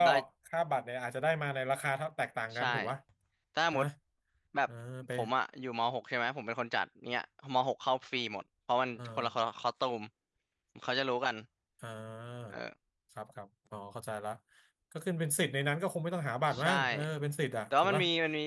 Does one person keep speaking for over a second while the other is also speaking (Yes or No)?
No